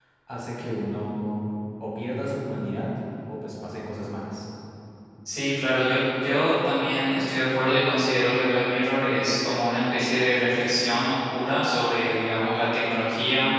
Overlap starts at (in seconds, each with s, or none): none